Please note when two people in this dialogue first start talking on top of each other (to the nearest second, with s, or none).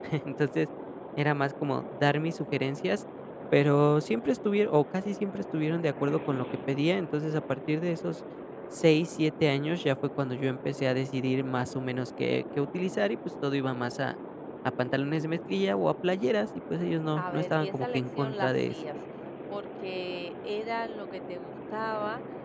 17 s